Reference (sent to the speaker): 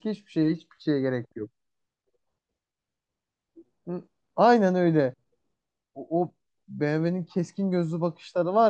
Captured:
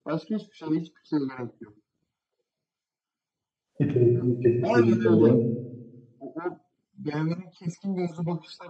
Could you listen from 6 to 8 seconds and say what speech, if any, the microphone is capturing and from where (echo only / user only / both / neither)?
echo only